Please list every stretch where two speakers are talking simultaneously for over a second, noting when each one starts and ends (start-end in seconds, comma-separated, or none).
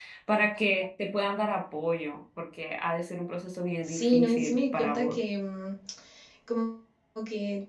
3.8-5.2